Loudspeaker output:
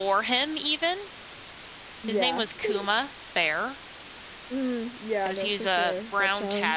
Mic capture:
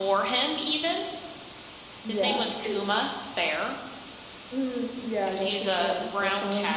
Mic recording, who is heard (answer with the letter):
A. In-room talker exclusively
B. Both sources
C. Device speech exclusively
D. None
C